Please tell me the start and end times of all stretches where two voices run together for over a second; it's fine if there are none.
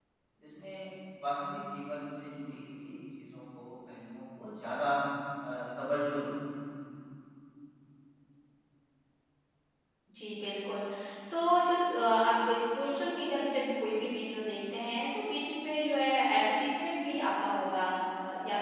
none

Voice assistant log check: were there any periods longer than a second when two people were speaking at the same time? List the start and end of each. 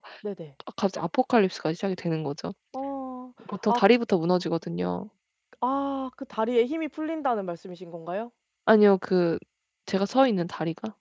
none

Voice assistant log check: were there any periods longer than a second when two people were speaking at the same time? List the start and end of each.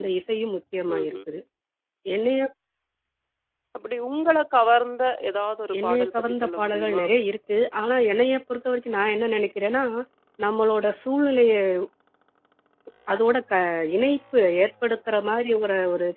5.8-7.0

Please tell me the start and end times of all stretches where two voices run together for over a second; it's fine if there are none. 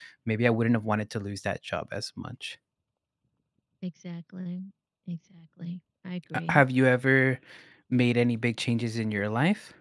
none

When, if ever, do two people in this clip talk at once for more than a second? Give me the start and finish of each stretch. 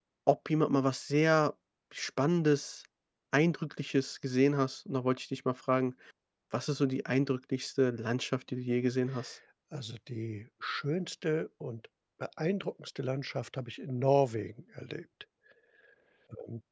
none

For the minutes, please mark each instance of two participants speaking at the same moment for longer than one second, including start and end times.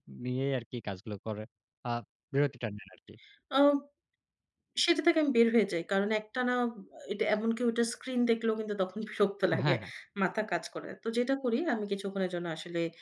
none

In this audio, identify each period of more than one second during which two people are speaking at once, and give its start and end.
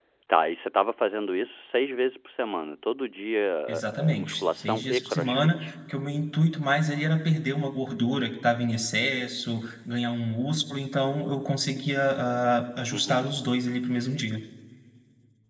3.7-5.7

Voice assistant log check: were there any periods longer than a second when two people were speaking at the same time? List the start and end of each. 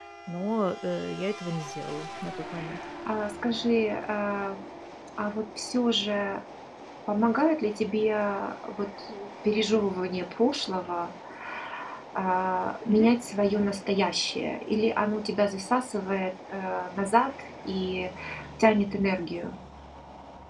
none

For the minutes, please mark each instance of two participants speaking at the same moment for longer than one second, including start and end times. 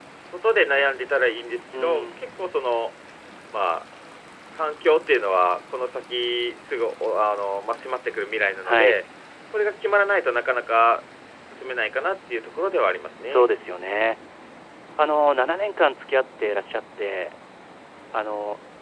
none

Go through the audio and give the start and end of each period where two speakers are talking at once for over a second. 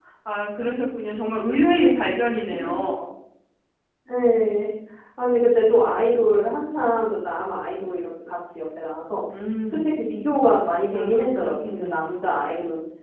10.9-12.4

